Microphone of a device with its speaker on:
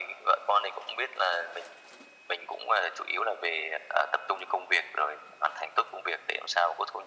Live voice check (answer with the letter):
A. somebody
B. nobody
B